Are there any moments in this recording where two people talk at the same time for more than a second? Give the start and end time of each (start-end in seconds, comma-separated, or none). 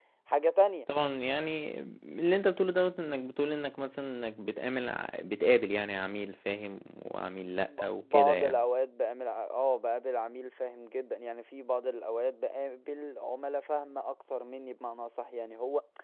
7.5-8.7